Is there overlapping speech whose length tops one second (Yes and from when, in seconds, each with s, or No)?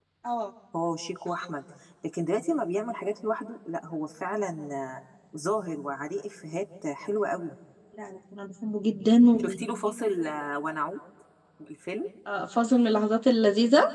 No